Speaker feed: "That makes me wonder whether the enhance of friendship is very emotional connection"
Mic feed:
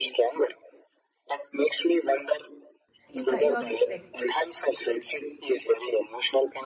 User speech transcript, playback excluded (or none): you ca- you are correct.